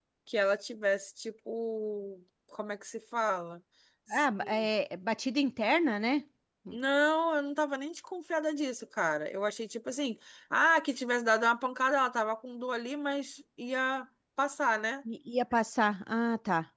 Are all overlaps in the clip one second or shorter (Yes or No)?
Yes